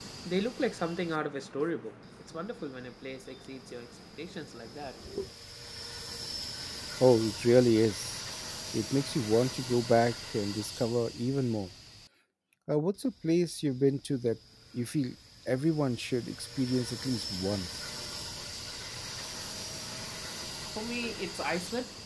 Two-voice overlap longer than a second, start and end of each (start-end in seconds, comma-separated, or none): none